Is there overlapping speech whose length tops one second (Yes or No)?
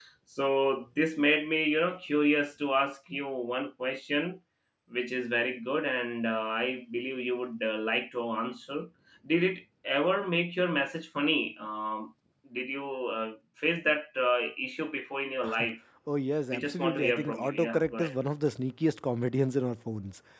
Yes